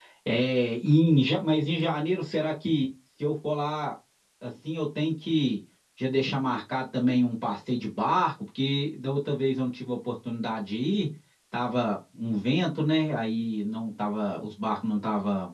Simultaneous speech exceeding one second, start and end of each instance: none

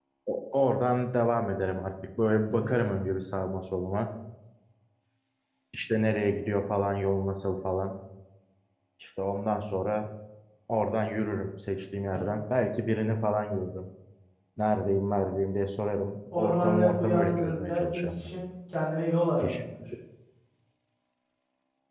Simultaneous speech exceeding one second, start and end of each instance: 16.4-18.3

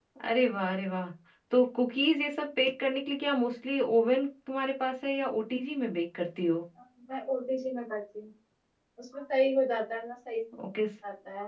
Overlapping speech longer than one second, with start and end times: none

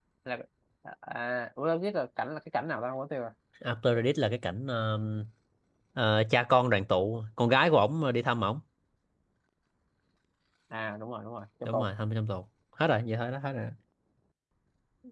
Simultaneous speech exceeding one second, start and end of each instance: none

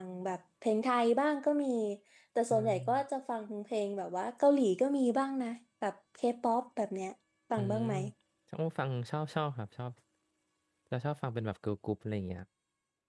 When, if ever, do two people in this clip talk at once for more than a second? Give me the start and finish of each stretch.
none

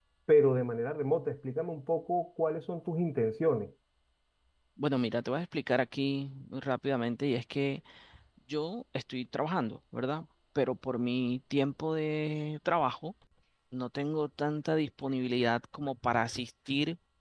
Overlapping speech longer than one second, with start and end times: none

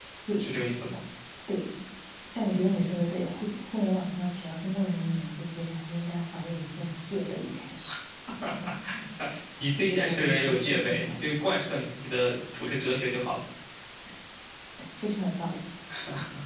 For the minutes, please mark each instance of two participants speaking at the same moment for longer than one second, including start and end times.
9.8-11.1

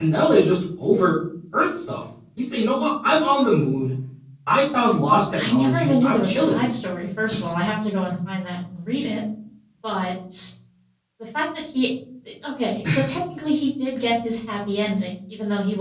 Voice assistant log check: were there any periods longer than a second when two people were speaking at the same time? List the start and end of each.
5.3-6.6

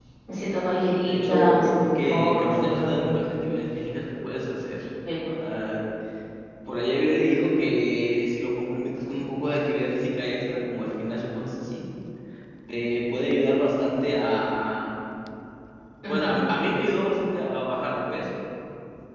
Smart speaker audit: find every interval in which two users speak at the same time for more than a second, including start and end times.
1.1-3.1

